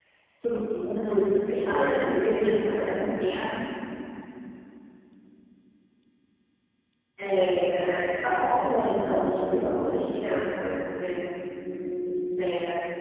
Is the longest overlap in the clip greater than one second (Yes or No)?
Yes